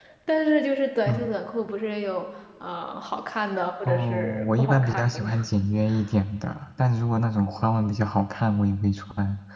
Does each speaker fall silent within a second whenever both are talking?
No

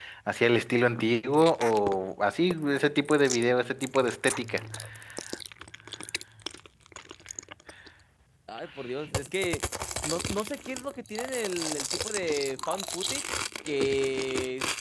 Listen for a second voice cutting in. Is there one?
No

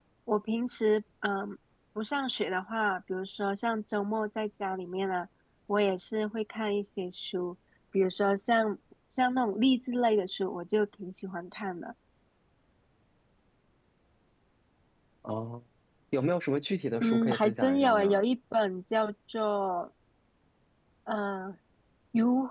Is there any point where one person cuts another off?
Yes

